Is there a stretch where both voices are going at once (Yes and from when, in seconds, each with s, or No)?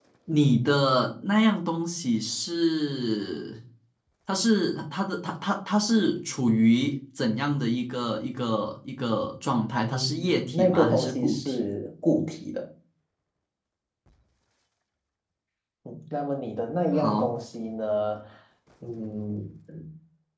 Yes, from 9.9 s